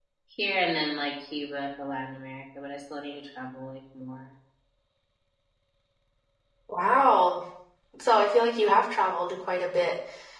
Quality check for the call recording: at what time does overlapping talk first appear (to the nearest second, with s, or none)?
none